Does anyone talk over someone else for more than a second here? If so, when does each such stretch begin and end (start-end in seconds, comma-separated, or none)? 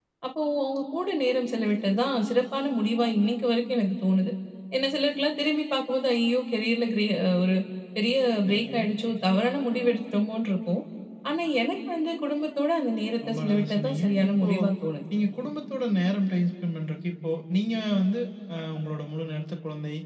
13.3-14.5